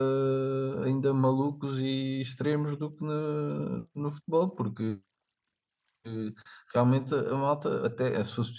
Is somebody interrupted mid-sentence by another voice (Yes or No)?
No